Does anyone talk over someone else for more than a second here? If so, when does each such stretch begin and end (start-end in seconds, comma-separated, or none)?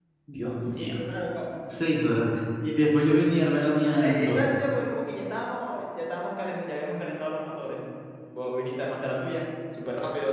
none